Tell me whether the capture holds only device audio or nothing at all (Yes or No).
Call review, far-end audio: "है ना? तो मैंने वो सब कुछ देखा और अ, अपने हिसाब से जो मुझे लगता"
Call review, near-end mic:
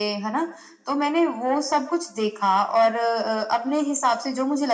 Yes